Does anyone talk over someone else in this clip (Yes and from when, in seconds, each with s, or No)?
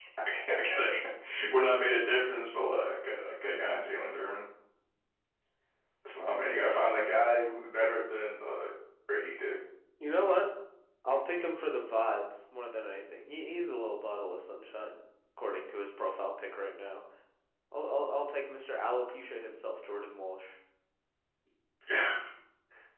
No